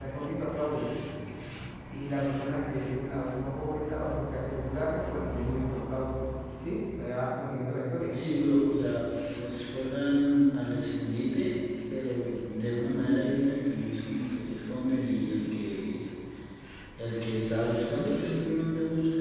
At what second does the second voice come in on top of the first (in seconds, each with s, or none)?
none